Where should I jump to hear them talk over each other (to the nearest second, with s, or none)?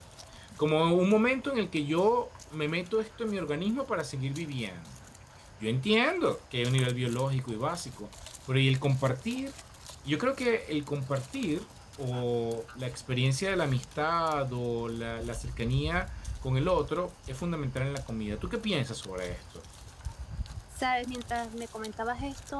none